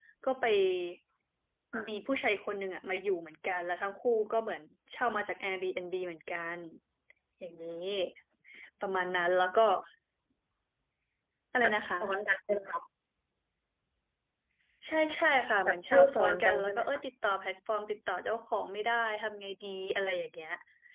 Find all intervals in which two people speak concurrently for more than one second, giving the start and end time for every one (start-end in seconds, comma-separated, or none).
15.7-16.9